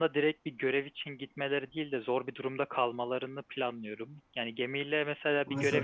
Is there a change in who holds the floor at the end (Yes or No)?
No